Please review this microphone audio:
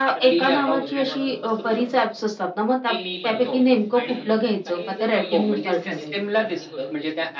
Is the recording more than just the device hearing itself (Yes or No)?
Yes